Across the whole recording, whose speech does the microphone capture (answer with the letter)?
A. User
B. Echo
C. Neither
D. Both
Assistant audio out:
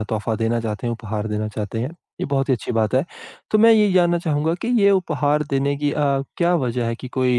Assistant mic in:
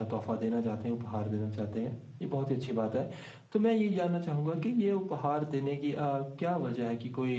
B